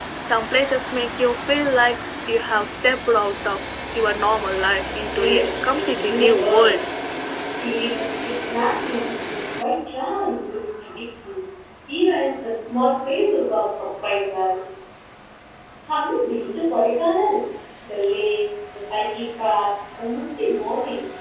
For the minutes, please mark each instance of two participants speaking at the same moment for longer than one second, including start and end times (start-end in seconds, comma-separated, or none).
5.0-6.8